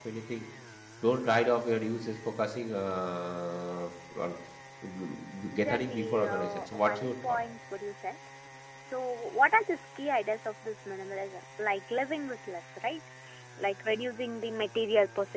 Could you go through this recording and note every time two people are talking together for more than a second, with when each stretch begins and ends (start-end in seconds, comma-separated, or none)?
5.5-7.4